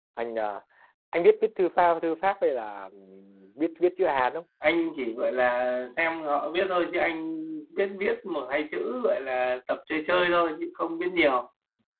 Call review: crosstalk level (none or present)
none